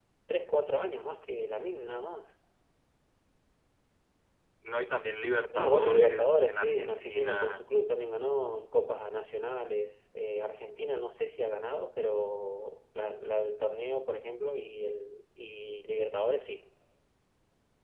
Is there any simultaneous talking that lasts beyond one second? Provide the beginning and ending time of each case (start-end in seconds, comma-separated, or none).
5.5-7.6